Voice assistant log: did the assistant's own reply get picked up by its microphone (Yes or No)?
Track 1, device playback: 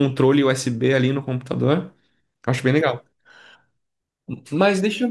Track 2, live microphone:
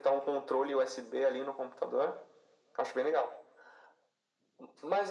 Yes